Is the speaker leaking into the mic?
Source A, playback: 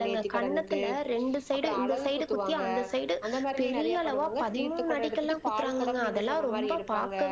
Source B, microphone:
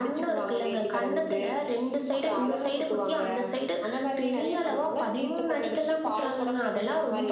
Yes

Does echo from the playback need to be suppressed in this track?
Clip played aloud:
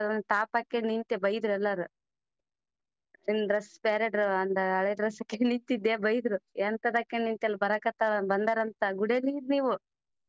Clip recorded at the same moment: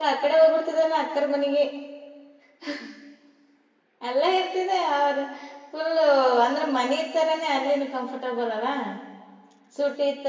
No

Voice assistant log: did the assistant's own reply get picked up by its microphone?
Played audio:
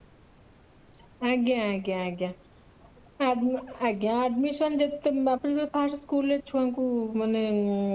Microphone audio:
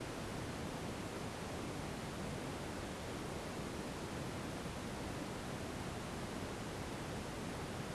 No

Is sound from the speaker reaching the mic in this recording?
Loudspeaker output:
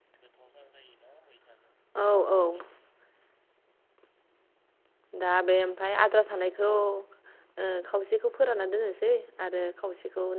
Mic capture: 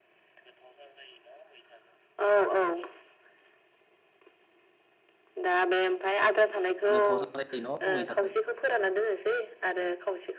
Yes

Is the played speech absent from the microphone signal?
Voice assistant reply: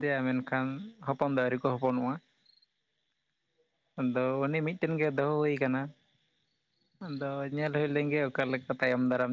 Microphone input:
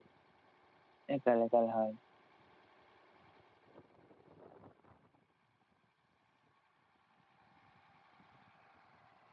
Yes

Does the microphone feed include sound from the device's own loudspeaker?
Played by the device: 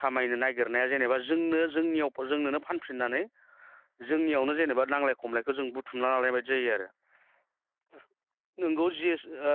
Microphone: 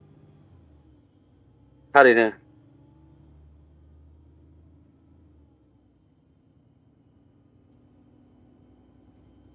No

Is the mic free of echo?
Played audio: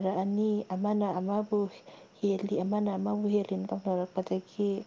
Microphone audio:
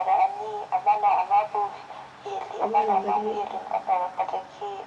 No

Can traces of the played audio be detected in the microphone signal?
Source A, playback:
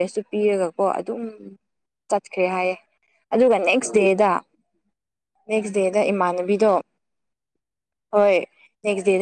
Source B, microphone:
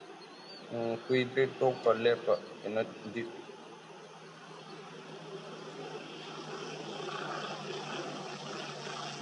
No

